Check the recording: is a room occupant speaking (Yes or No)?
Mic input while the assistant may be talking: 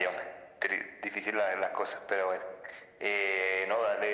No